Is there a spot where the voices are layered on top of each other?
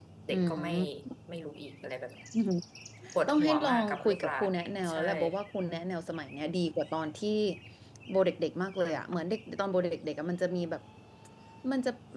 Yes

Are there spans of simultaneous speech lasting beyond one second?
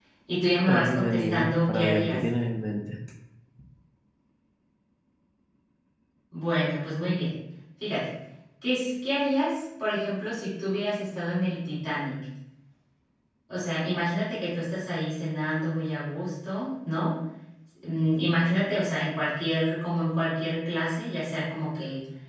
Yes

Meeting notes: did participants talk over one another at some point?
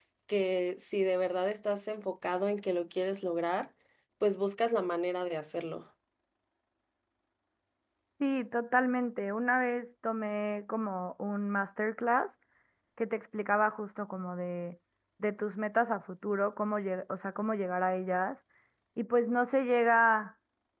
No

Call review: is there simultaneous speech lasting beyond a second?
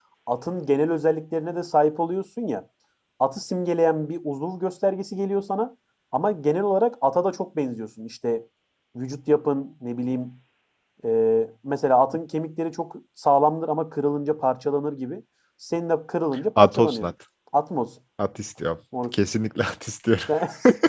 No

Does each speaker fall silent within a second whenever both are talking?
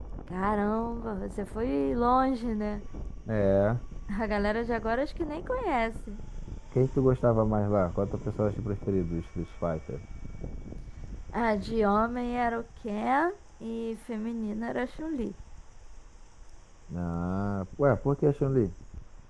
Yes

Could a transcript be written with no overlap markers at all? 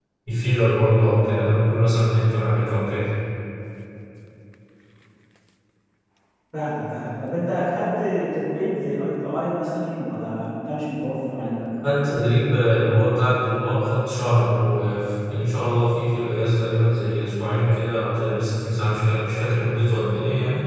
Yes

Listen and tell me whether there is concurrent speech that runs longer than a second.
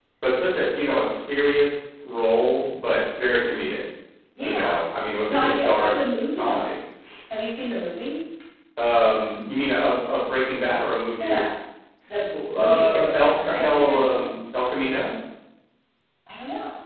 Yes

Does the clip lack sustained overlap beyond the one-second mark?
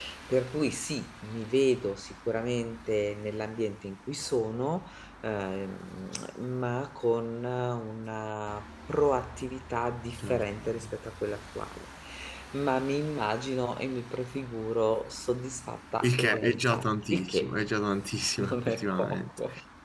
No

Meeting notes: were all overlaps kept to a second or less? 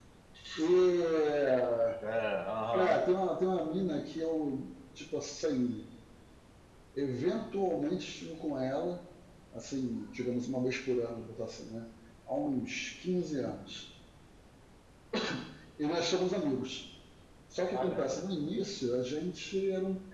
Yes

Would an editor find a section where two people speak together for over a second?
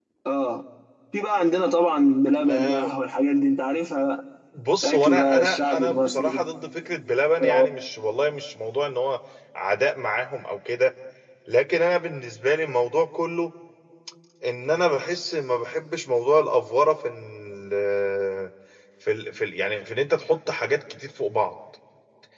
Yes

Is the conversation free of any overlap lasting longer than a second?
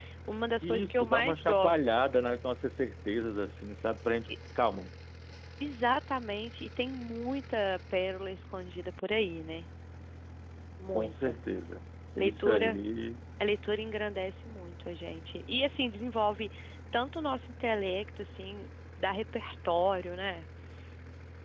No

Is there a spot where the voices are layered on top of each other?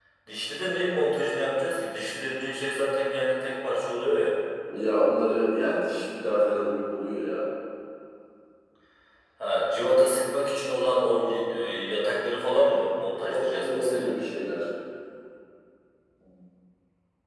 Yes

